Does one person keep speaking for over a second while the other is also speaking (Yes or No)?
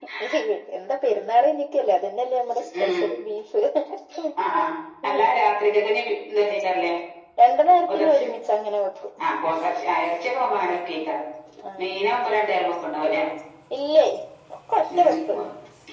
No